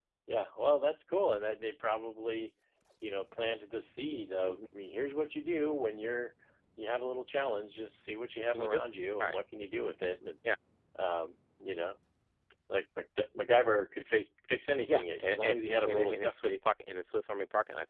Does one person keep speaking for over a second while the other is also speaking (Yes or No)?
Yes